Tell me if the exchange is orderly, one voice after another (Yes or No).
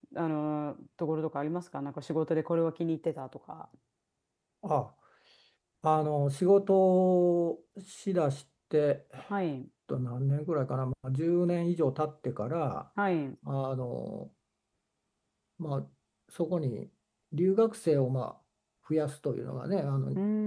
Yes